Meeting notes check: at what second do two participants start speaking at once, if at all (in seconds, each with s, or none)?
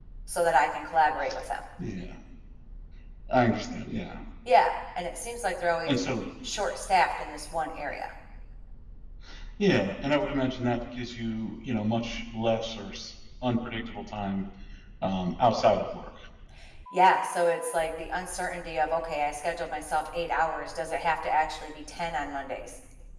none